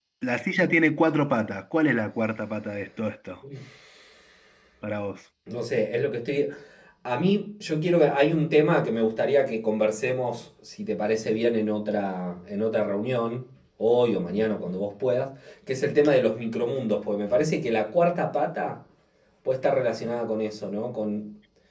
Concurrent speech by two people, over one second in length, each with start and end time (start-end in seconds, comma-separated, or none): none